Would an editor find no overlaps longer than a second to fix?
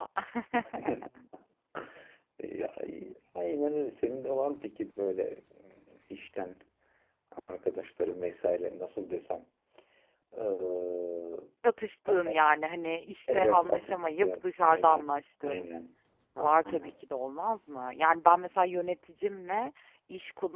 No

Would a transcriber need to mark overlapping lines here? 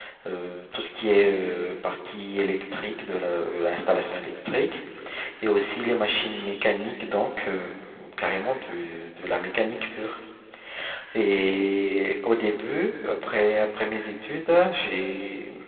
No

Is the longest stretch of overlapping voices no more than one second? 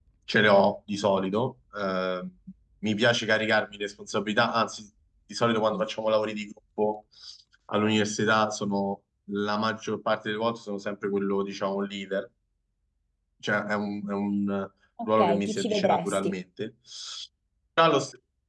No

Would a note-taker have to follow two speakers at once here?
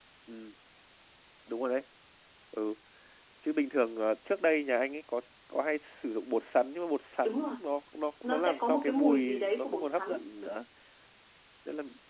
Yes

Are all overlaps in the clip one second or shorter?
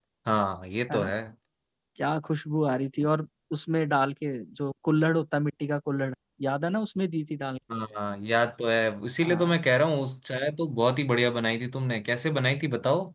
Yes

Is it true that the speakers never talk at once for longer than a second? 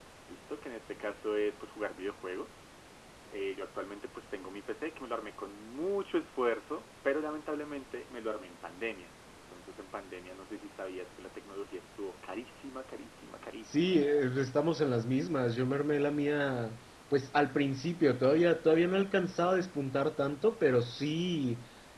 Yes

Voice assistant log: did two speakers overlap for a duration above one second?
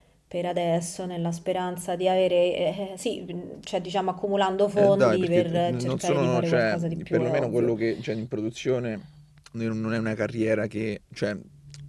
Yes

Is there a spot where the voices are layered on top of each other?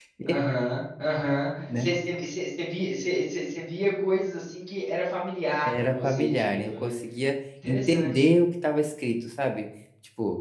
Yes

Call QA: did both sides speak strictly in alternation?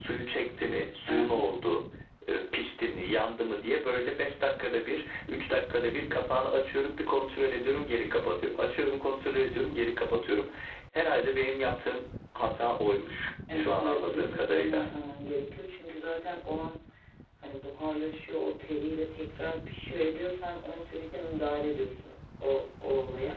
No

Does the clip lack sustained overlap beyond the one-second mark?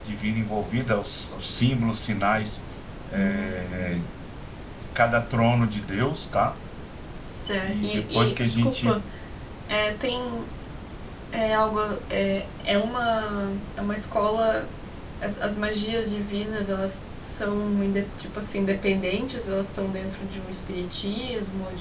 No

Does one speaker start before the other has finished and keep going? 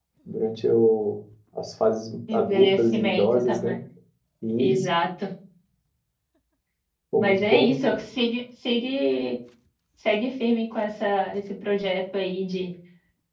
Yes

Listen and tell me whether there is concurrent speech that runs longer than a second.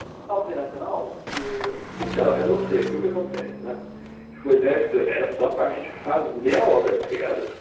No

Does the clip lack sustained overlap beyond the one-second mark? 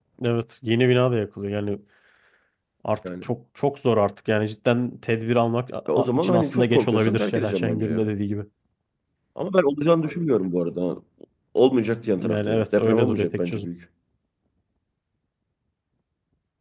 No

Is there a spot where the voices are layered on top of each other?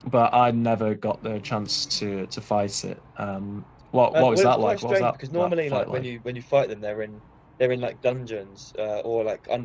Yes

